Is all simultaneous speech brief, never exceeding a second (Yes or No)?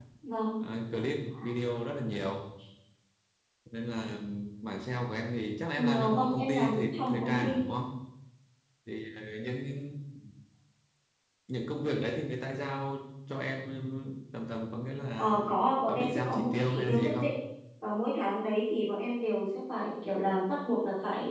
No